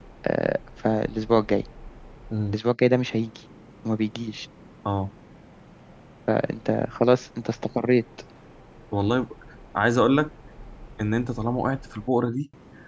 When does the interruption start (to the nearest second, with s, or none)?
none